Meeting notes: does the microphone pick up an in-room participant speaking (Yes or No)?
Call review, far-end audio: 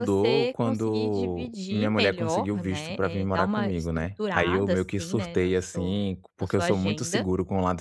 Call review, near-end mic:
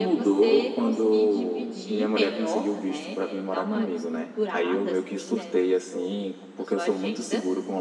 No